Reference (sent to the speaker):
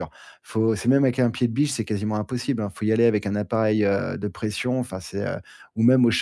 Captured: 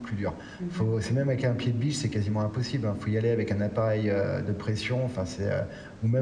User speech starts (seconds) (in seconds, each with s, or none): 0.6 s